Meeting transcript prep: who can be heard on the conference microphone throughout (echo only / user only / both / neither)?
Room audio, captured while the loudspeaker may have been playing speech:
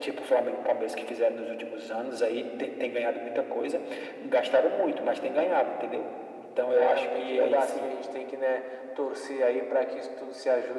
echo only